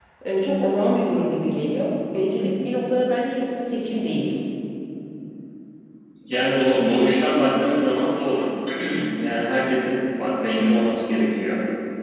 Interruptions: none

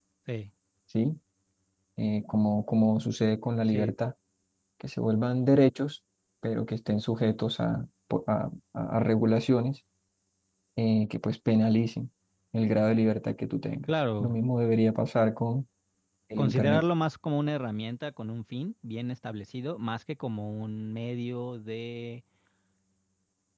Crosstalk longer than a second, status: none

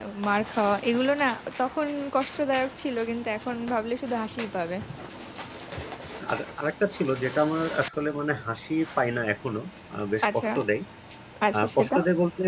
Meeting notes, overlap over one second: none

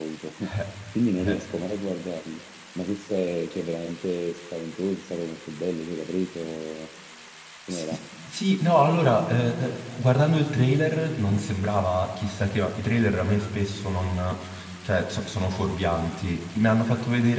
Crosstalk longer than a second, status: none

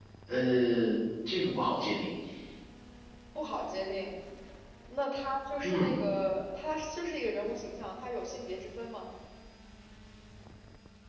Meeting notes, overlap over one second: none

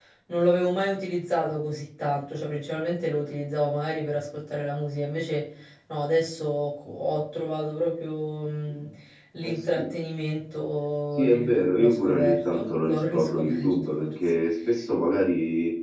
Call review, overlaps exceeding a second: present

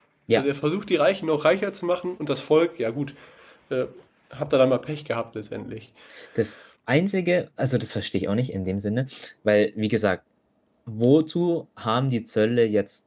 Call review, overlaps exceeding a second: none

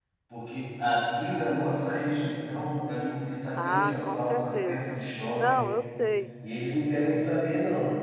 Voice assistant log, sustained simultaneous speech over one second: present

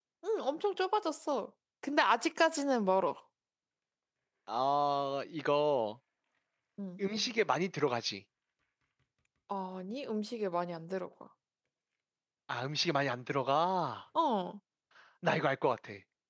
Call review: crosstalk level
none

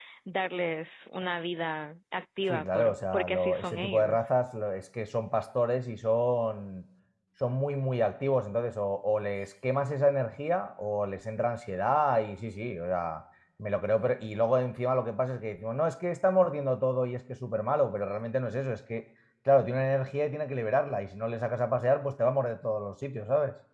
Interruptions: present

